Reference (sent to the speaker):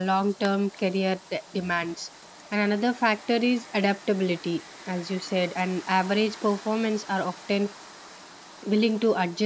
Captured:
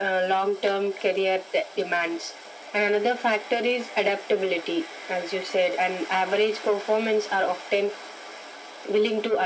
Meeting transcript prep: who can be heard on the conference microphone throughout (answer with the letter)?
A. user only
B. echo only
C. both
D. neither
B